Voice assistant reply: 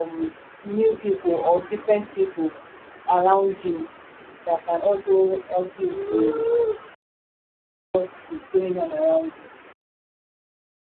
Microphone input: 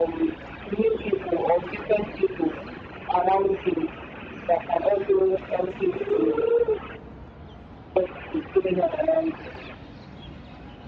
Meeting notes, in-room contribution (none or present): none